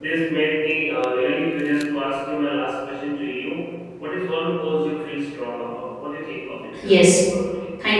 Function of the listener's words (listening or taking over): taking over